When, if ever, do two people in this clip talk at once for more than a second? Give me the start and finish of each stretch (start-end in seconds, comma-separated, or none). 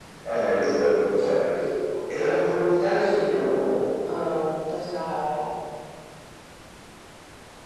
2.1-3.5